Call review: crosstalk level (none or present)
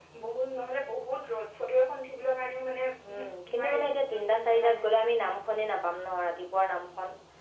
present